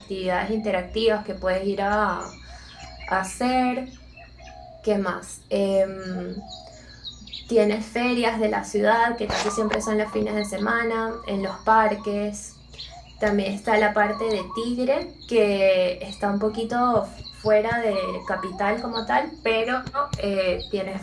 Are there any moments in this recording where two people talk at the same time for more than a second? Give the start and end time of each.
none

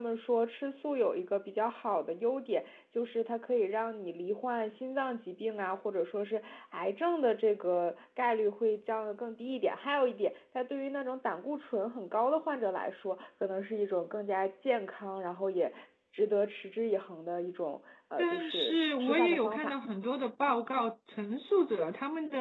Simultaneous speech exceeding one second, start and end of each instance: 18.2-19.8

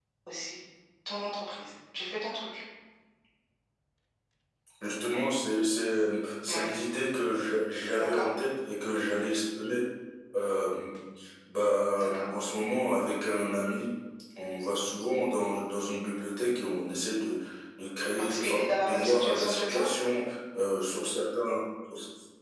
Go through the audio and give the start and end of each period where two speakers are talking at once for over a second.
18.2-19.8

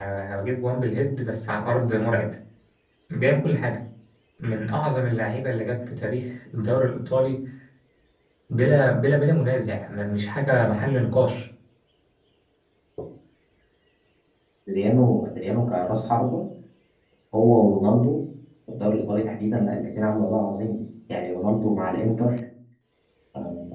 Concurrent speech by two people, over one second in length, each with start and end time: none

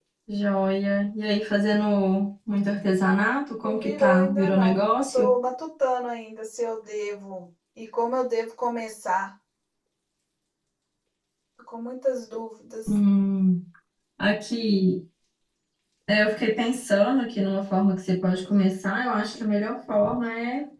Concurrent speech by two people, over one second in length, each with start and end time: 3.6-5.3

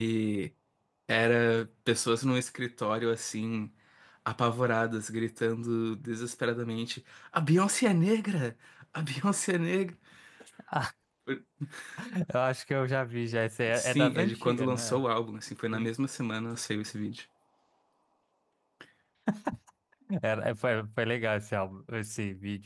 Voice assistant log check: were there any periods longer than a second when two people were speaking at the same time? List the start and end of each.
13.7-15.0

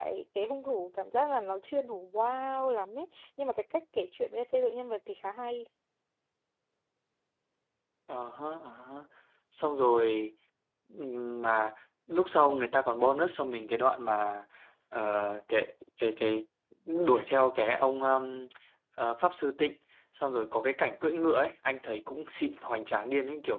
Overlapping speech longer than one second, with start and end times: none

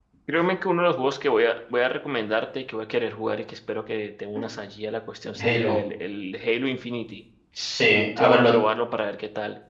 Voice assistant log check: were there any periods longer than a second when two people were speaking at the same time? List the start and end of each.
none

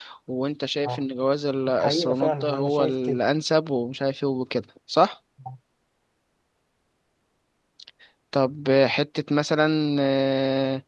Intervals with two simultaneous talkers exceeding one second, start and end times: 1.8-3.2

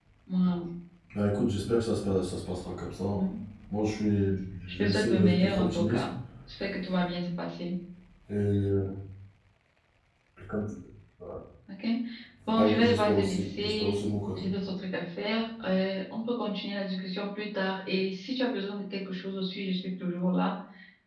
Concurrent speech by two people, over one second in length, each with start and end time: 4.7-6.1, 12.5-14.4

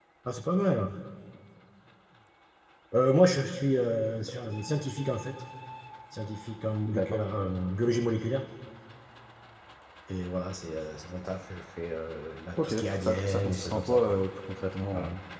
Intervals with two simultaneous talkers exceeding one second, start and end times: 12.6-14.1

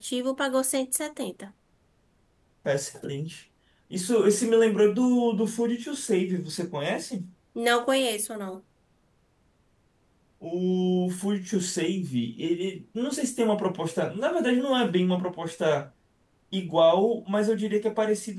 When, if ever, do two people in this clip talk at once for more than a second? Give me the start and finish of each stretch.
none

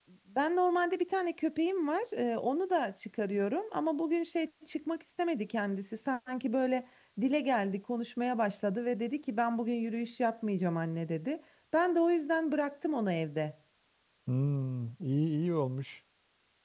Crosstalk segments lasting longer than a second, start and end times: none

